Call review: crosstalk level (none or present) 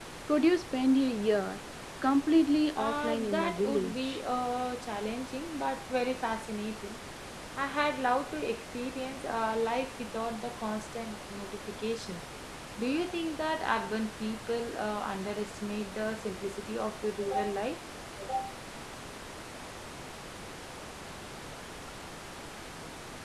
present